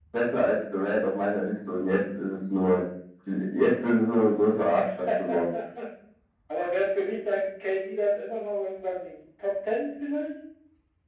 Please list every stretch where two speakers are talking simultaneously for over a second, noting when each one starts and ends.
none

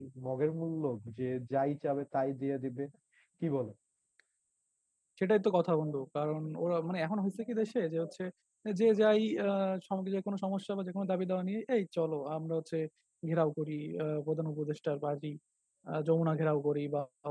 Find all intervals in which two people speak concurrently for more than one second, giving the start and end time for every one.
none

